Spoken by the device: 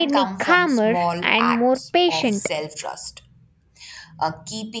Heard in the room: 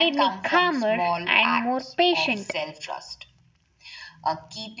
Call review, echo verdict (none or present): present